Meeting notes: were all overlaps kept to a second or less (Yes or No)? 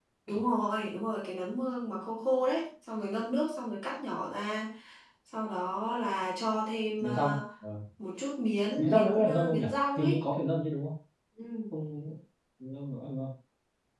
No